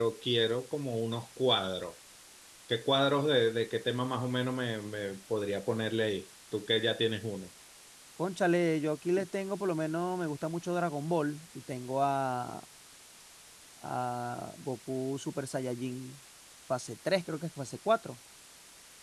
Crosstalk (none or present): none